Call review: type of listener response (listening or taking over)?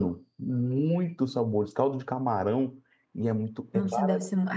taking over